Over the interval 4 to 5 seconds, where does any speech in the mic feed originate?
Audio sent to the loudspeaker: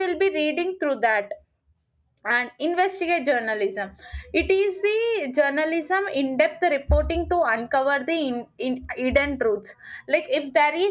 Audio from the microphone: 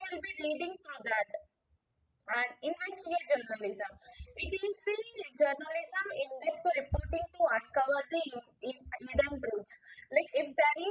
echo only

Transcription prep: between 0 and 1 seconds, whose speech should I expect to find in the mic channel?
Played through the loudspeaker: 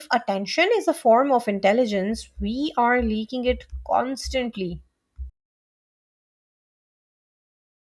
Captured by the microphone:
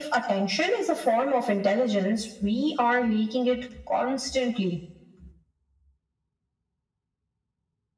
echo only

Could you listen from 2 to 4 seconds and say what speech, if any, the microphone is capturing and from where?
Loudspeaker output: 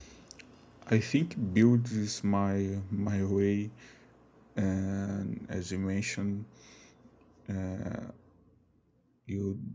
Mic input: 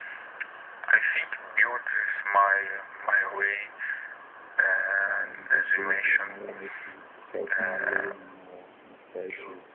echo only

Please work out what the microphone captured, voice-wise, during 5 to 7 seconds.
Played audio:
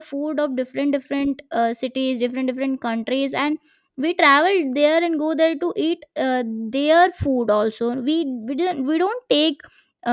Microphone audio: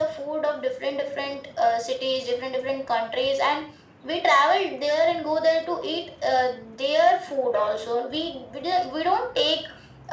echo only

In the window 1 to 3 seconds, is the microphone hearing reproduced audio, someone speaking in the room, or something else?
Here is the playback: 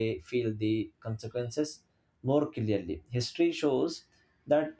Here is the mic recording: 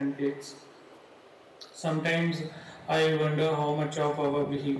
user only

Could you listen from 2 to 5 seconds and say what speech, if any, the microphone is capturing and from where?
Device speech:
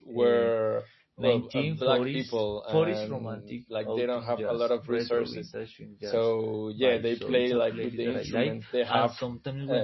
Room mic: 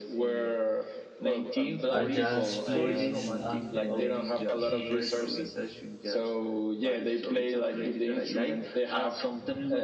both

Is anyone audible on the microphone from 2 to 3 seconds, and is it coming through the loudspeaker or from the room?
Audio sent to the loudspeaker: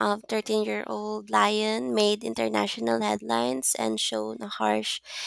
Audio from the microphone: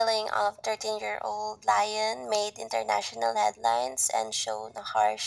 echo only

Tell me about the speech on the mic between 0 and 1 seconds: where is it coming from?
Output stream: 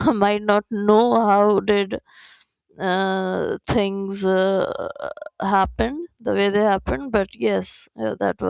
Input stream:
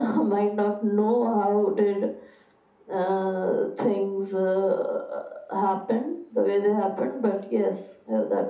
echo only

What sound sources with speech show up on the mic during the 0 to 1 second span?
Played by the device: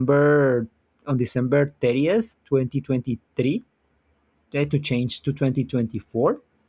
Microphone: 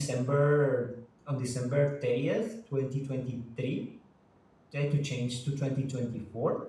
echo only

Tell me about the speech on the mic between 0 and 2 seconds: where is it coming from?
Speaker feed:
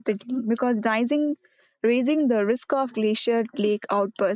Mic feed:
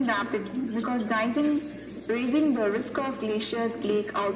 echo only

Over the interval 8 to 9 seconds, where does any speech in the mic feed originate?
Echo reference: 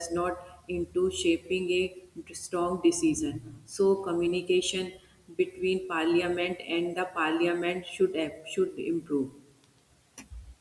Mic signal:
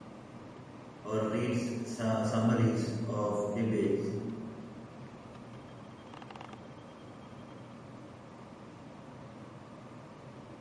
neither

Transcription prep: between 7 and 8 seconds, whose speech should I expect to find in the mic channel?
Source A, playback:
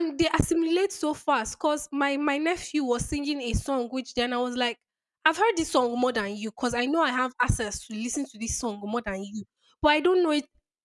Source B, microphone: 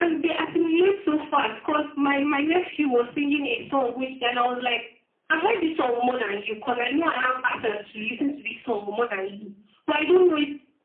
echo only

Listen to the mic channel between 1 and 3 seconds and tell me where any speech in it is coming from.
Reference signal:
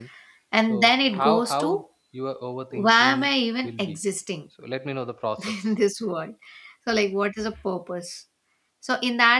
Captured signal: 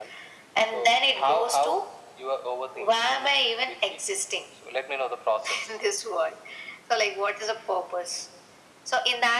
echo only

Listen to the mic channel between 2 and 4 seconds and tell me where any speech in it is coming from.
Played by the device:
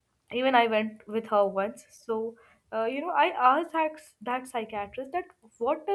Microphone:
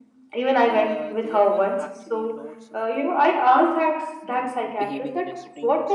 both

